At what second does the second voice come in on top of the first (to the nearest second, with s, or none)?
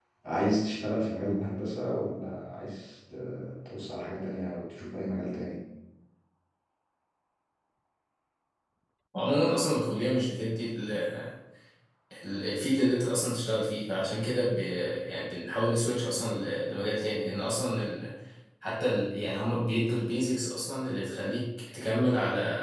none